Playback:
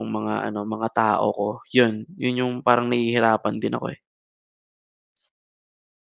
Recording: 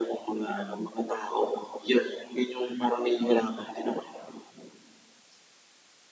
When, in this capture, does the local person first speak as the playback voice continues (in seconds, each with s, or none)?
0.4 s